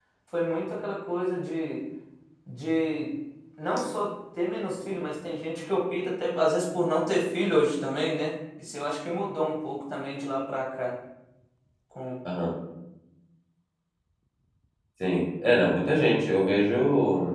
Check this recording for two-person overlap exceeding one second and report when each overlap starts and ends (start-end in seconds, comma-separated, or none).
none